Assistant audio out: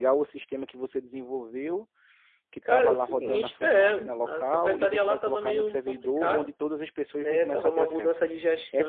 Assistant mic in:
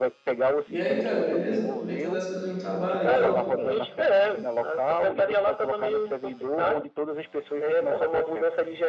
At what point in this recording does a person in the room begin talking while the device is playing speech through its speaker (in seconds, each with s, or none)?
0.7 s